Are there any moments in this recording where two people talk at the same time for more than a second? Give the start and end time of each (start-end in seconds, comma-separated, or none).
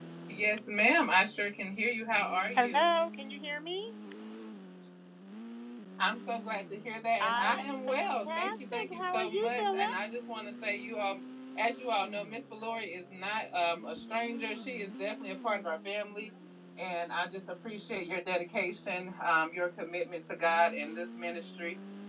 7.2-10.0